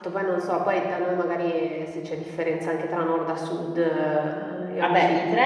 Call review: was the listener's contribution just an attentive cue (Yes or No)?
No